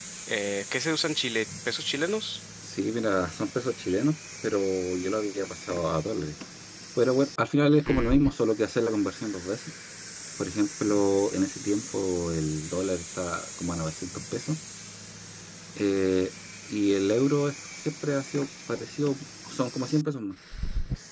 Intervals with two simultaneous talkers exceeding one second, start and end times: none

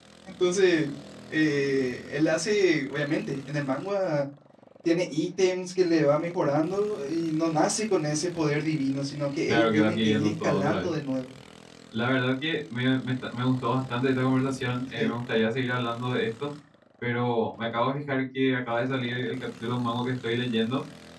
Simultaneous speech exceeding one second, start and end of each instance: 9.5-10.9

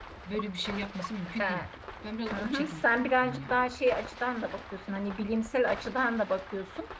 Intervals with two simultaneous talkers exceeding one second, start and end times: none

